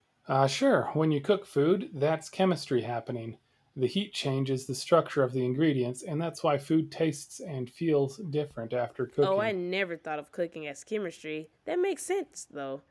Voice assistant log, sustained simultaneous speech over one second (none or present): none